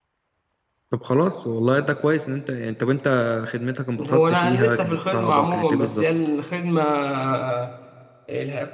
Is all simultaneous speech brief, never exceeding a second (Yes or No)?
No